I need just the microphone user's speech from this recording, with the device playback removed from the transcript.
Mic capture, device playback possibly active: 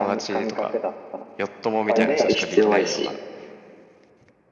はやっぱり必要やし、

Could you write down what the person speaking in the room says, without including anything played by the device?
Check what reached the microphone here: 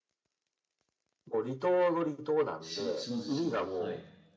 し、下地島、はい、

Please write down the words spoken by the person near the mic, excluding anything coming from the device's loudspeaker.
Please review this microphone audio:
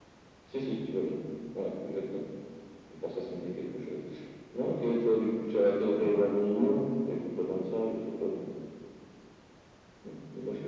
none

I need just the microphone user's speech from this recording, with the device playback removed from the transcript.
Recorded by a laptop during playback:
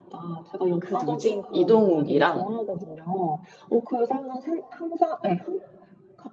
그 누구지? 이동욱이랑,

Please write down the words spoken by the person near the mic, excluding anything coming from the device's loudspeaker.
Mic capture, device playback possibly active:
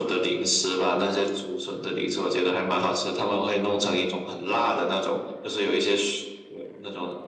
none

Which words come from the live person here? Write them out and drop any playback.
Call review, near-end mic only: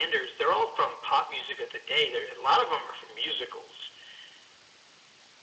none

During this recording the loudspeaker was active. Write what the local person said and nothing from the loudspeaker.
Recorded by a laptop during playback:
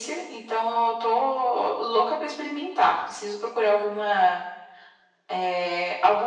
none

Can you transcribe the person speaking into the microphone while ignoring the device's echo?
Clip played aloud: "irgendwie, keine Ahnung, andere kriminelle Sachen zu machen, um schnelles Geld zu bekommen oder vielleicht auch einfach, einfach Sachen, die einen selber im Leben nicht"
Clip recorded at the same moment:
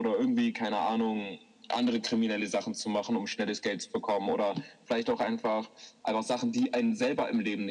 none

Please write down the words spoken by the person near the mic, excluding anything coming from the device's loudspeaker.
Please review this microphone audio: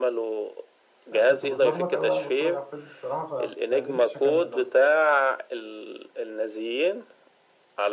يعني كنت متلخبط قوي وانا بتفرج على الفيلم الصراحه فما قدرتش اكمل اصلا

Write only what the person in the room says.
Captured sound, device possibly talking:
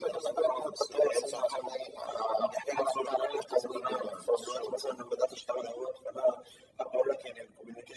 none

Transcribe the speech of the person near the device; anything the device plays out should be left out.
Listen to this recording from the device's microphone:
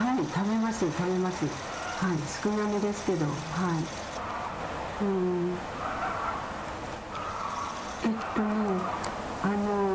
none

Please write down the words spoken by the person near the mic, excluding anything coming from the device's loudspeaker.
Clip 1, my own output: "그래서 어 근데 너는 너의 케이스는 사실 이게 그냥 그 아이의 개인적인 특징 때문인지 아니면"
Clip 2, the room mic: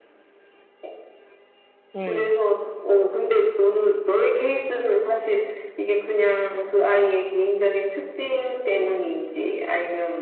음.

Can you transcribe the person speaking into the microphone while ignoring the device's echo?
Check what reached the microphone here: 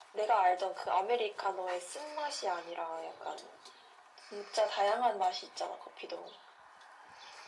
none

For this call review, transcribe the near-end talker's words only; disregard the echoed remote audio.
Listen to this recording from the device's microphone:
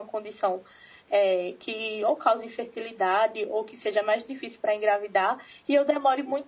none

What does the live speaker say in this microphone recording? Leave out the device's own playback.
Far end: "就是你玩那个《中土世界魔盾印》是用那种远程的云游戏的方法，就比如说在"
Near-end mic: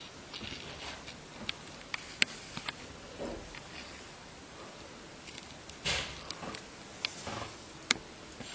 none

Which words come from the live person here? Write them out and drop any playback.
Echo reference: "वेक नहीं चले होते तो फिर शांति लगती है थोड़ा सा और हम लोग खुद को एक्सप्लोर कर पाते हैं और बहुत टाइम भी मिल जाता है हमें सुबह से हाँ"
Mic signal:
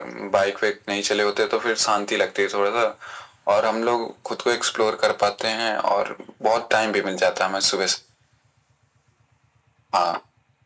none

